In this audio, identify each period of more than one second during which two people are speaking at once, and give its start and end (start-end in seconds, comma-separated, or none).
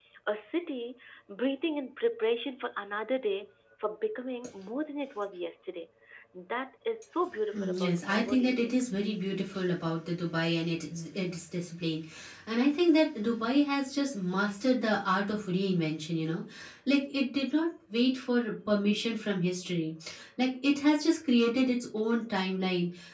7.5-8.8